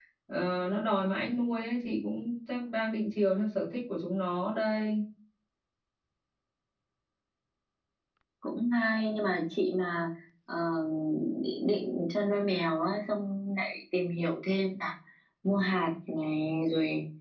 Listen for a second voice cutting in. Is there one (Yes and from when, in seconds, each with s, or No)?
No